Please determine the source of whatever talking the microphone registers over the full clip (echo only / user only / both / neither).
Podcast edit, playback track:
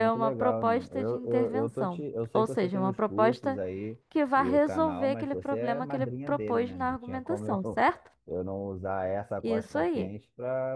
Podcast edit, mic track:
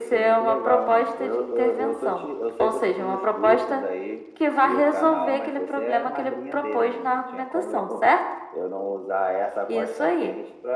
echo only